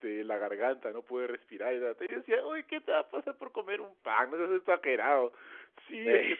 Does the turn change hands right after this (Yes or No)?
No